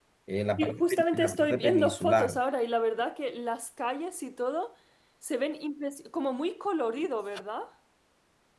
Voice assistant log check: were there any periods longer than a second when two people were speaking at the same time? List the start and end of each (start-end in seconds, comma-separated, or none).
0.6-2.4